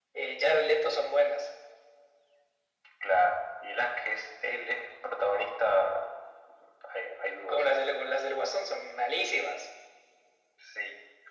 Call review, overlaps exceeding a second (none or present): none